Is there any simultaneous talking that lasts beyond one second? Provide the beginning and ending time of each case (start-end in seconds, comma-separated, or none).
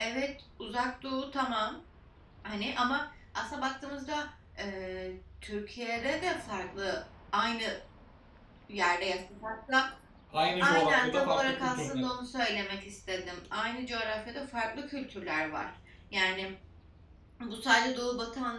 10.6-12.1